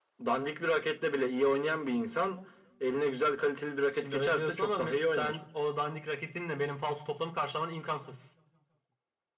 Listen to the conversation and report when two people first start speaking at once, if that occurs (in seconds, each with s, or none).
4.0 s